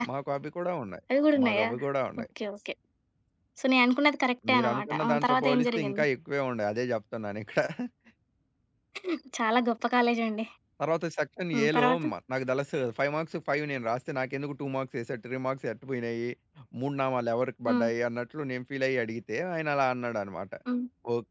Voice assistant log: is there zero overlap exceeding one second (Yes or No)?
No